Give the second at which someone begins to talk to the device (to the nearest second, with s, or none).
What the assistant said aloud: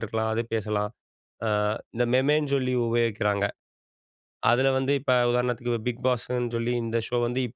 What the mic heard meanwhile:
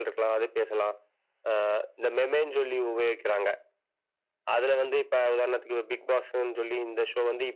none